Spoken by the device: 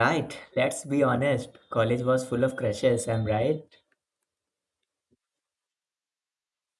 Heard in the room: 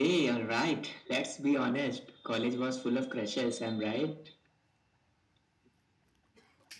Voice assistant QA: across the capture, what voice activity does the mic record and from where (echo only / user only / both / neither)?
echo only